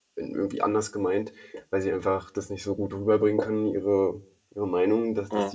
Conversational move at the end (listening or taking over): listening